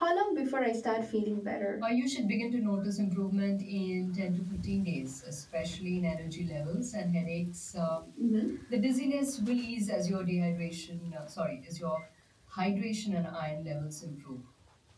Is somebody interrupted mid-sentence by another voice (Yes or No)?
No